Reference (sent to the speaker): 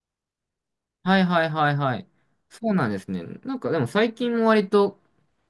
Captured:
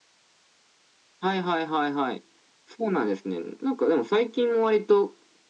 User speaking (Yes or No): No